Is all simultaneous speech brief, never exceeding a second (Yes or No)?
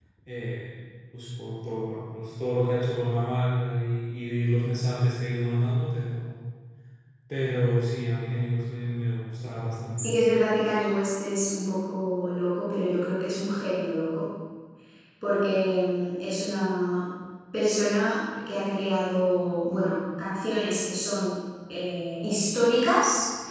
Yes